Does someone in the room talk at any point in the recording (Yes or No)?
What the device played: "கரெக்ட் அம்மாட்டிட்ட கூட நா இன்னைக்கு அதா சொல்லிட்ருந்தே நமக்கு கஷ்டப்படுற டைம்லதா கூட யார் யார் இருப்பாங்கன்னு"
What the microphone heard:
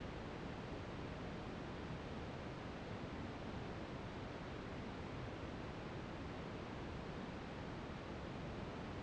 No